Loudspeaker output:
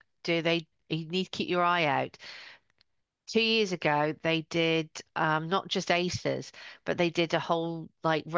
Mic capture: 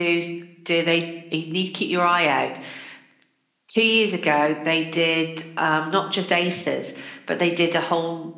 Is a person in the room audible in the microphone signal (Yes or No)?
No